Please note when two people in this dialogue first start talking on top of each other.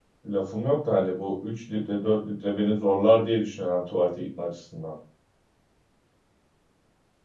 none

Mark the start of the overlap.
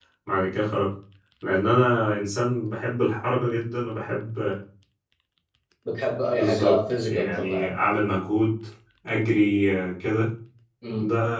6.3 s

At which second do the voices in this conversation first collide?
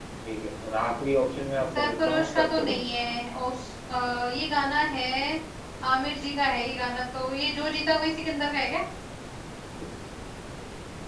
1.7 s

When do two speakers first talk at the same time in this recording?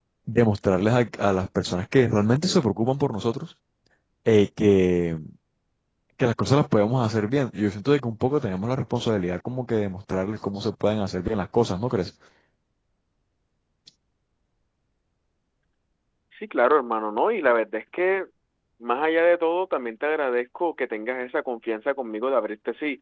none

